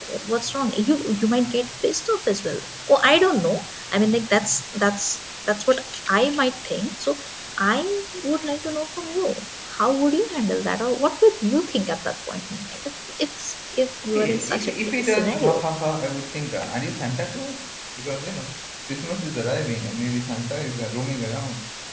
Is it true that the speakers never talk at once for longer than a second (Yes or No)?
No